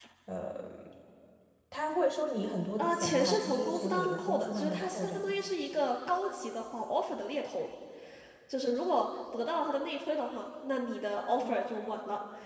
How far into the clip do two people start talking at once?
2.8 s

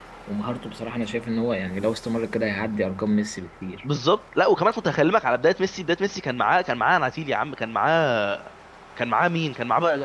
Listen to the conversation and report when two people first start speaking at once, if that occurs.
none

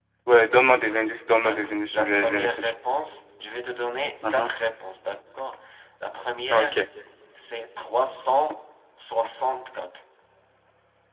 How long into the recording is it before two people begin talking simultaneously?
1.4 s

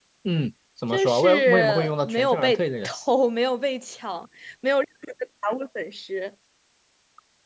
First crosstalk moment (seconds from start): 0.9 s

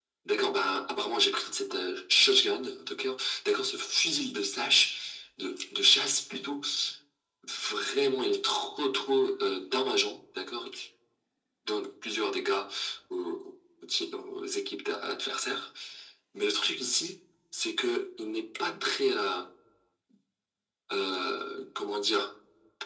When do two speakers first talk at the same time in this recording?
none

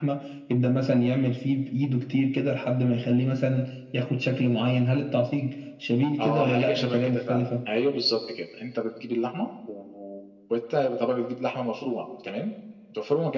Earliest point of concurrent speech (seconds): 6.2 s

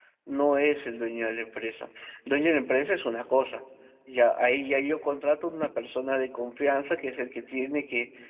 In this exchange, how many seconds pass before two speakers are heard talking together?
none

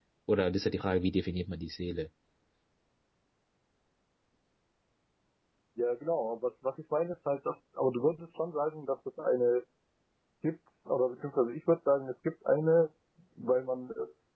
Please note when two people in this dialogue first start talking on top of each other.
none

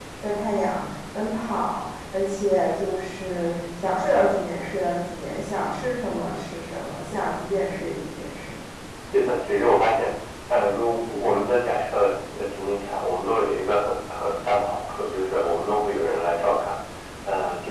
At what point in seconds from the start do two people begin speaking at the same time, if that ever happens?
none

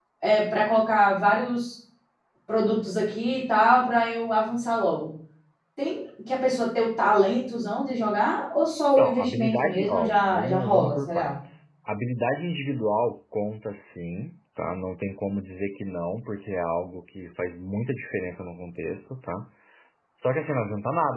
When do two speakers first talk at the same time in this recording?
9.0 s

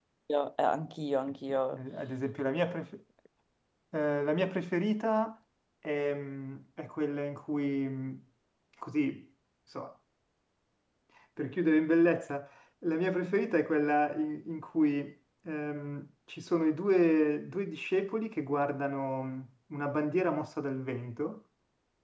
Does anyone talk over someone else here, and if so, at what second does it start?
none

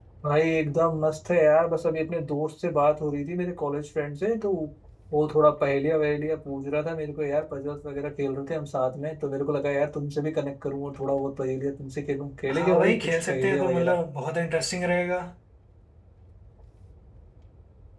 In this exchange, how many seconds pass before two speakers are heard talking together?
12.5 s

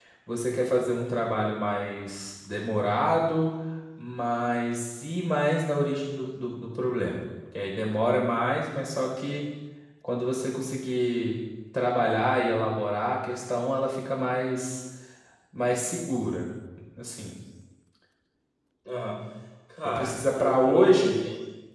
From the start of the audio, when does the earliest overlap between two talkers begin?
19.9 s

